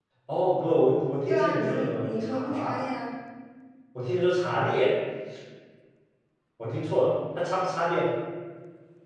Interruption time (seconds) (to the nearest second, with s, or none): 1 s